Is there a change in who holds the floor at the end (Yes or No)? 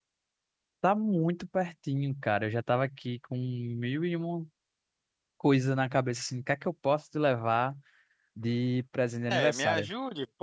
Yes